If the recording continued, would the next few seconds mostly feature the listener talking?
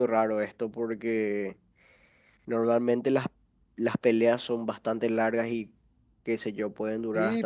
Yes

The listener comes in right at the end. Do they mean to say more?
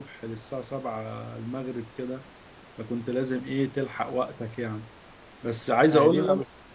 Yes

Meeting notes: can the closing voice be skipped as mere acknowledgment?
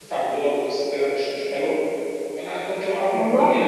Yes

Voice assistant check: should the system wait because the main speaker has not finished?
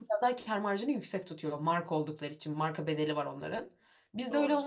Yes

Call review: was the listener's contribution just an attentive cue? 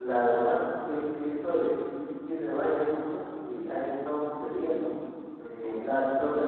Yes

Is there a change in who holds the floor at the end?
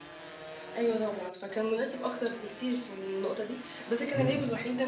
No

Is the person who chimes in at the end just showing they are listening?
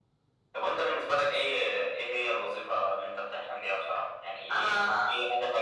Yes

